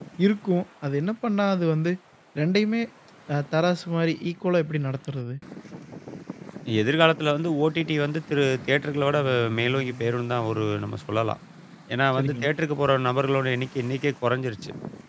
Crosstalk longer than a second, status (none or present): none